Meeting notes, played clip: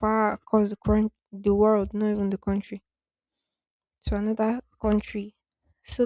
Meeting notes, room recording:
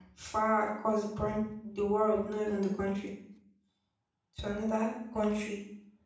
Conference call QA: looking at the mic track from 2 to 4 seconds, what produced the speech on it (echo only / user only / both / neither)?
echo only